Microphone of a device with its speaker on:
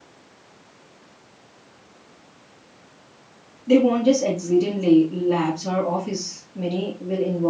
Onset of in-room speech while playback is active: 3.6 s

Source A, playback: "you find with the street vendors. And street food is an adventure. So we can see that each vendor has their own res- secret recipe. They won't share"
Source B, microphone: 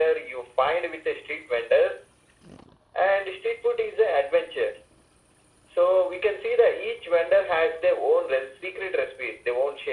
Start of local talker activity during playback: none

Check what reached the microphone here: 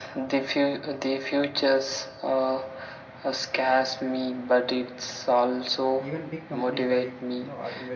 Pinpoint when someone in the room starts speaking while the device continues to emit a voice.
6.0 s

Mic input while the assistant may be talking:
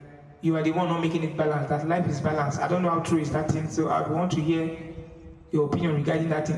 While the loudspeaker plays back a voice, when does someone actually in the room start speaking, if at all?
none

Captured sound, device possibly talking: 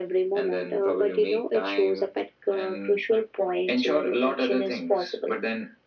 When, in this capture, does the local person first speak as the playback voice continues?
none

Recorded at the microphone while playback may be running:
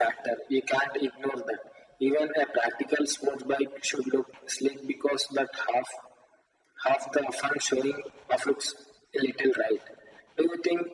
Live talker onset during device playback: none

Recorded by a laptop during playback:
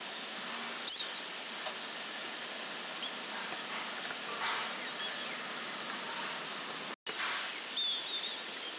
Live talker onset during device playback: none

